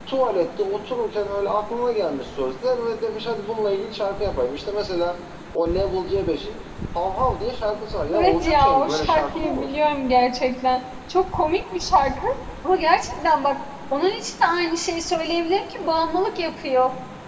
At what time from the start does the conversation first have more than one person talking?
8.1 s

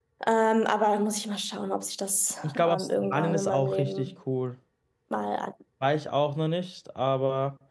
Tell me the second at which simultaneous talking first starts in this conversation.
2.4 s

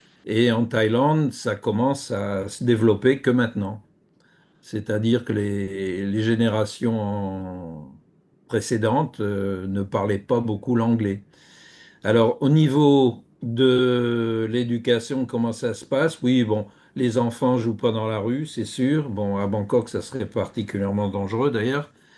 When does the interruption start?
none

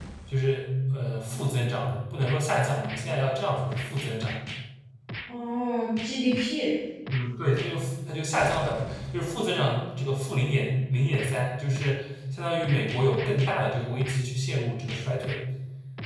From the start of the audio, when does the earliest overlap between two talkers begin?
none

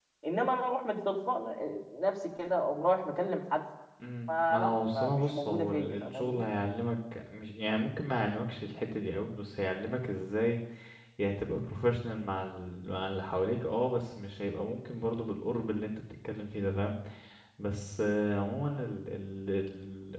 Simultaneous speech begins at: 4.3 s

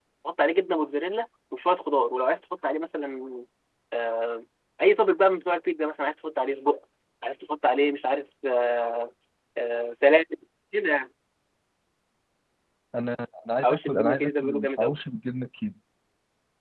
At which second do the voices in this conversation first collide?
13.6 s

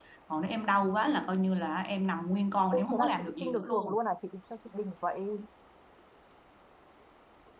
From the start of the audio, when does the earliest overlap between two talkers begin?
2.7 s

